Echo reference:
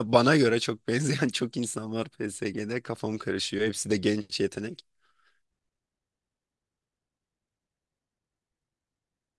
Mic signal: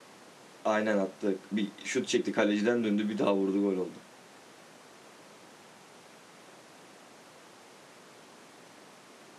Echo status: none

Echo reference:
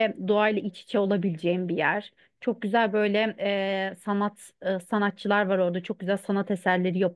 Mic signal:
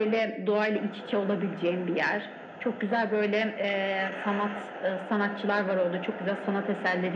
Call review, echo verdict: present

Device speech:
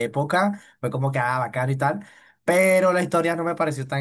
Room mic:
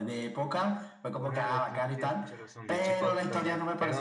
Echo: present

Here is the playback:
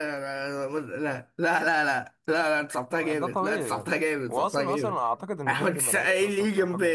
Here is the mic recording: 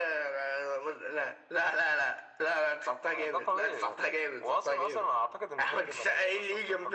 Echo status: present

